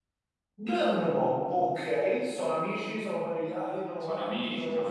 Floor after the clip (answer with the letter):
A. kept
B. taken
B